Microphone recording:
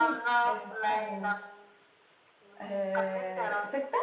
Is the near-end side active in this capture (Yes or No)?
Yes